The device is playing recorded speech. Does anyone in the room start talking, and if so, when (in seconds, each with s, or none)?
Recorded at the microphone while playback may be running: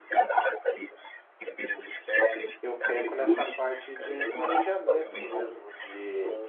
2.6 s